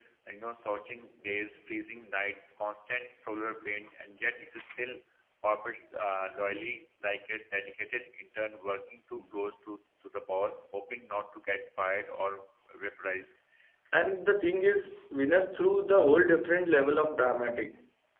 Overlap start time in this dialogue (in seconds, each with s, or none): none